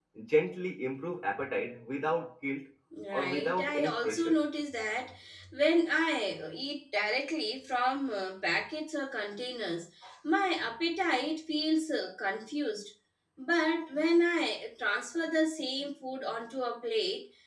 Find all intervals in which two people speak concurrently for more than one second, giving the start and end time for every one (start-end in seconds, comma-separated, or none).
3.1-4.4